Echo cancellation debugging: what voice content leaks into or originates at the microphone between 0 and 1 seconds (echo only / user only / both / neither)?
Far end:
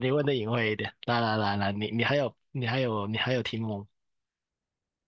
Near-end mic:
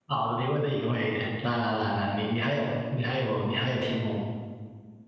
echo only